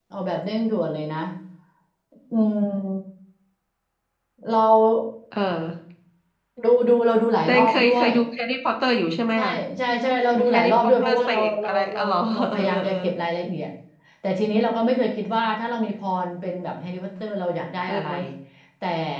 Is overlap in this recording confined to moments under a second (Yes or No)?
No